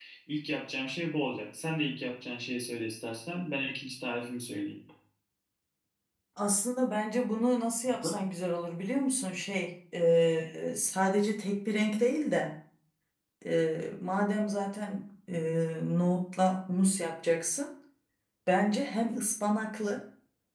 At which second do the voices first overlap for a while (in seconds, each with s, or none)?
none